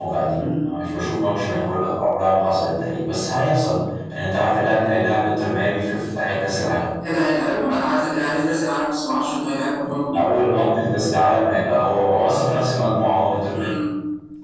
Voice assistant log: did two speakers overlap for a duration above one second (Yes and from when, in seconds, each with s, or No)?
No